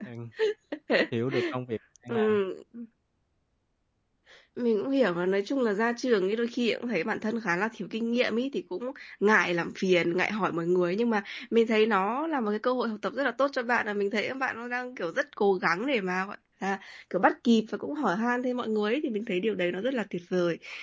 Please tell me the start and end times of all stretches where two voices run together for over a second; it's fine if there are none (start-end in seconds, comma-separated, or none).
none